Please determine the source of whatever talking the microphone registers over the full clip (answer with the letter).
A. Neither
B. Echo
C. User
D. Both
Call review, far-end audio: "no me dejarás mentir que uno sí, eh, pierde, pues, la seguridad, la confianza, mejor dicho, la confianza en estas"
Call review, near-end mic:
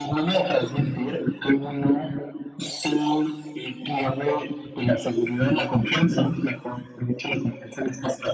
B